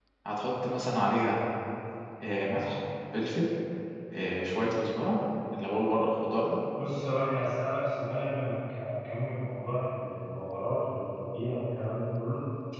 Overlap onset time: none

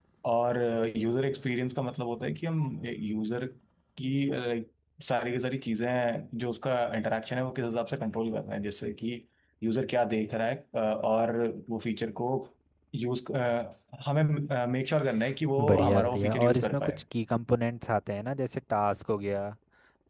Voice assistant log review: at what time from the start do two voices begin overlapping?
15.7 s

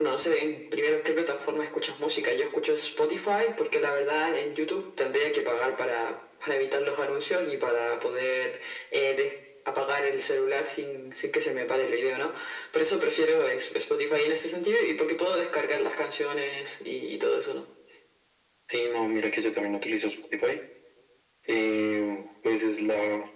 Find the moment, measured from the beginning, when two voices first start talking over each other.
none

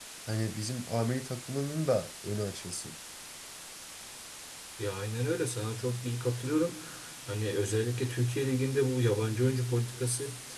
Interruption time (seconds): none

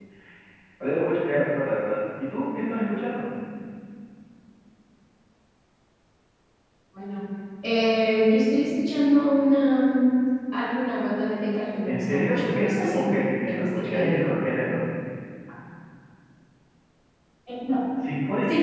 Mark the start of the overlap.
11.8 s

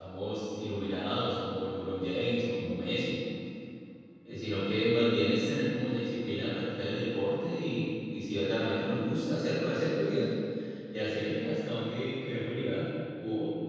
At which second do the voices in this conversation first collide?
none

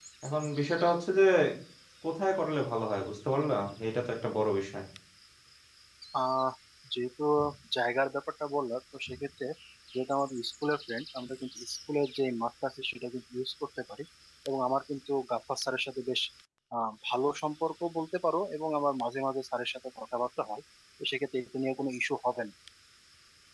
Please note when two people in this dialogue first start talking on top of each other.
none

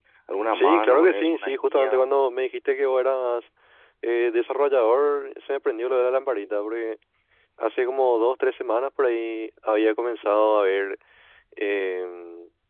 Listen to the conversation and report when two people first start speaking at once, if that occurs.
0.5 s

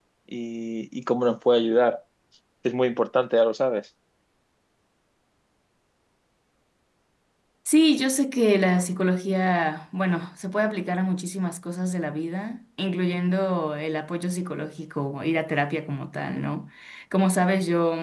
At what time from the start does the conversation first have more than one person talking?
none

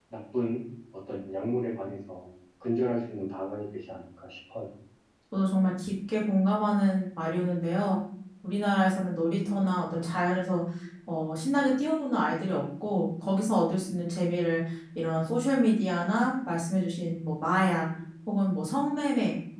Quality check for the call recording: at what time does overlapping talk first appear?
none

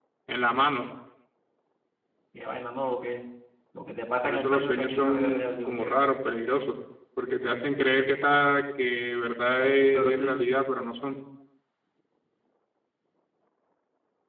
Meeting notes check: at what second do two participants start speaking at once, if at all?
4.2 s

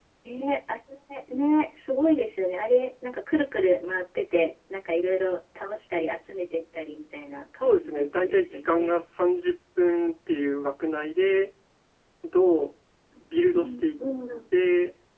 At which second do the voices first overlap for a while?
7.6 s

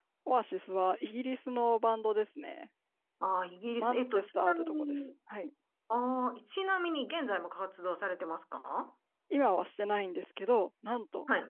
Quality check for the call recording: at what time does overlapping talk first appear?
3.8 s

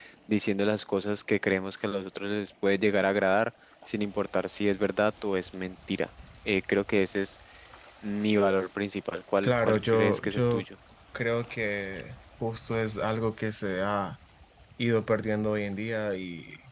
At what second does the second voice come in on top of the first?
9.4 s

